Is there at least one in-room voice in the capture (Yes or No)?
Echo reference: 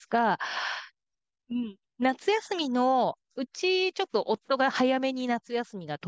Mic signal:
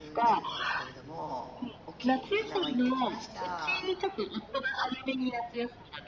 Yes